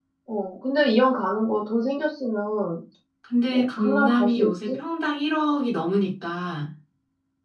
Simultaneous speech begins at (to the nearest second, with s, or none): 3 s